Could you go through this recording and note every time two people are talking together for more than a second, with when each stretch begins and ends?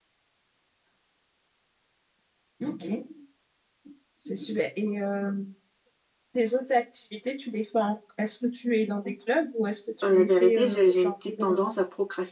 10.0-11.7

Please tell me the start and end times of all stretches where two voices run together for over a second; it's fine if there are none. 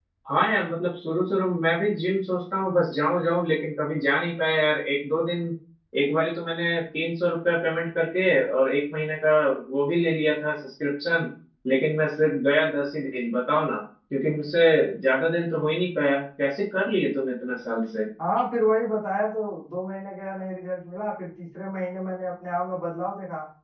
none

